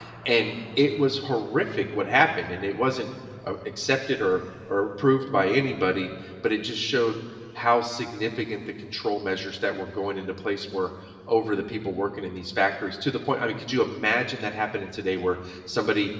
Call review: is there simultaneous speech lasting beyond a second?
No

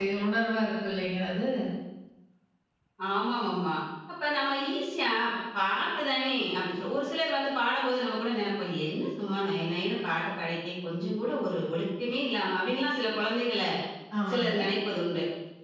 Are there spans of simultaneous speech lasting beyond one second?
No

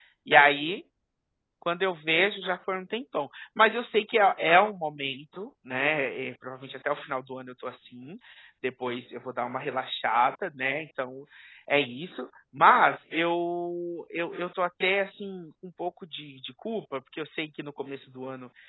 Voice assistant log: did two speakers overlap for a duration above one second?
No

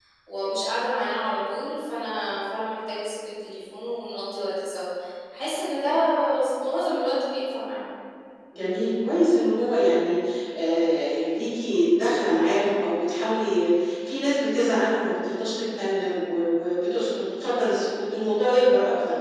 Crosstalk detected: No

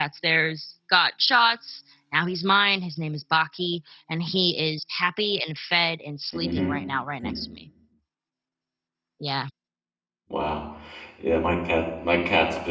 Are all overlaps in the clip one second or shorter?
Yes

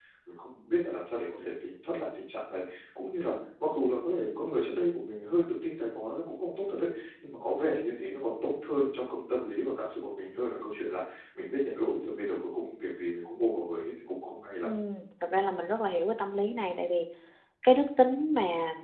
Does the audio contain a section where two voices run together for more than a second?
No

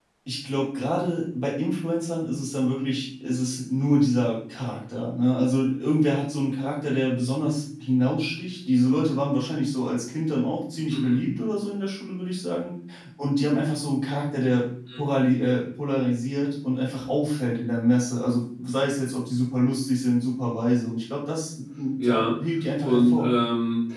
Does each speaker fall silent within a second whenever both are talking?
Yes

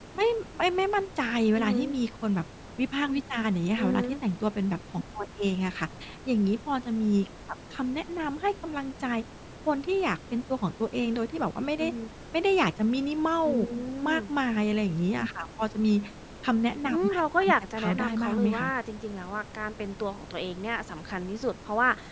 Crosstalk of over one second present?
Yes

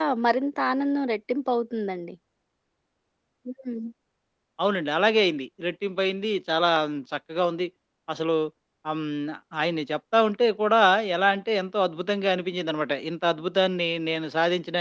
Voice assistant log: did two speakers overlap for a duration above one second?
No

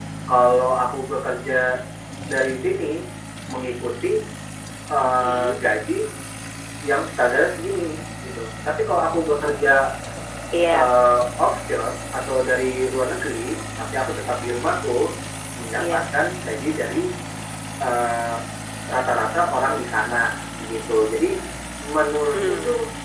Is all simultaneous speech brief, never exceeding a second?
Yes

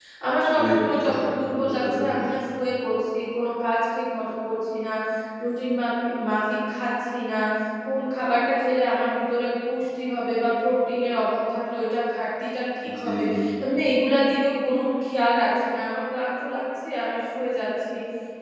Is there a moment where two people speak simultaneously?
Yes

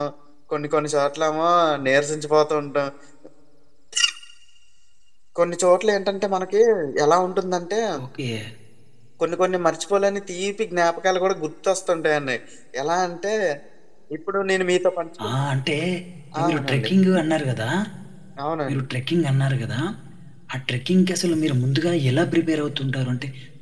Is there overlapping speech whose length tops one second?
No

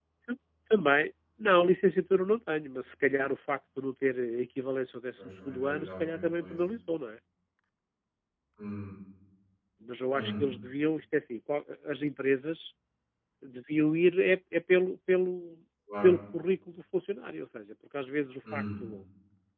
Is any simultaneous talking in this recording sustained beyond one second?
Yes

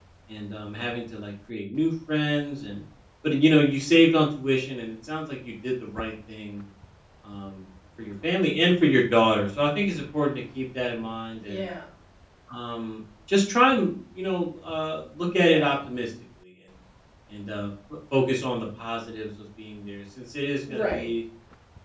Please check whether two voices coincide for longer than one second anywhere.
No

